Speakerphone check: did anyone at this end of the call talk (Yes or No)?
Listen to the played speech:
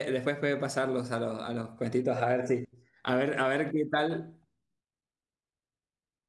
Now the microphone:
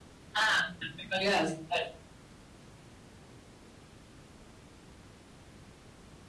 Yes